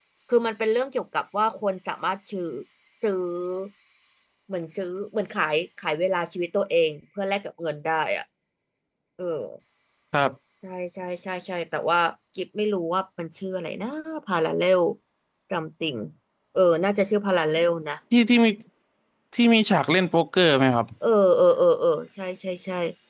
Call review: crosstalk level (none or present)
none